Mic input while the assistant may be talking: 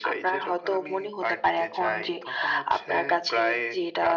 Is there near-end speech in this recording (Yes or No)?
No